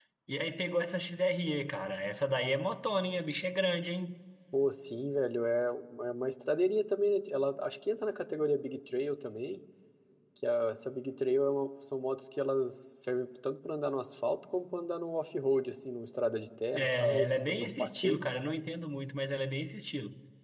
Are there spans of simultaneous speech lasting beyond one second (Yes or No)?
Yes